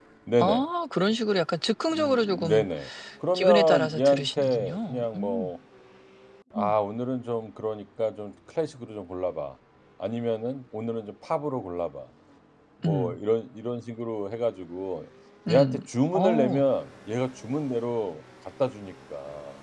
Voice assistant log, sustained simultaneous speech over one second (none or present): present